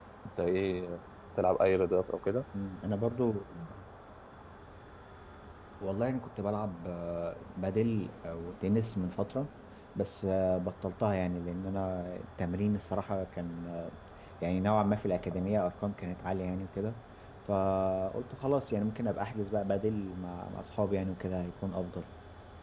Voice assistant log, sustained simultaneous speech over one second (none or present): none